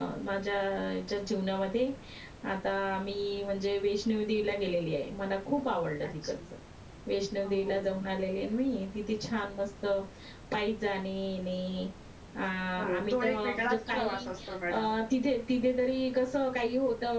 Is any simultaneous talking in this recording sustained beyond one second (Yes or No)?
Yes